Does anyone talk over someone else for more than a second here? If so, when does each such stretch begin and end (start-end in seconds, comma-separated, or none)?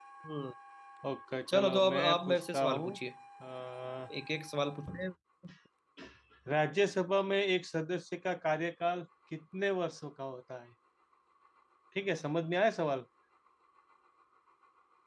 1.5-3.0